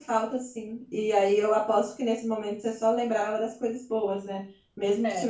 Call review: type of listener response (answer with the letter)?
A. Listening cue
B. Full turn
A